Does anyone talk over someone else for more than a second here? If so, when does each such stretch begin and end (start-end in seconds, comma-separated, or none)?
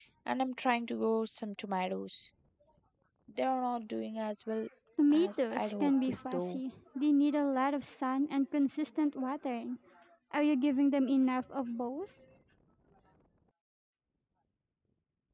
5.1-6.6